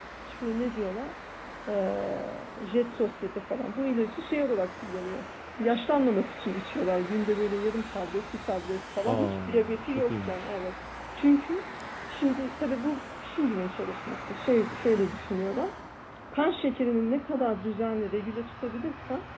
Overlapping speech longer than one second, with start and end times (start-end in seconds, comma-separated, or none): 9.1-10.4